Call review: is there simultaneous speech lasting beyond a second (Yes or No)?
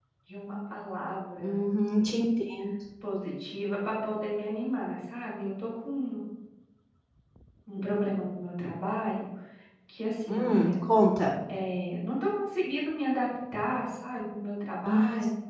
No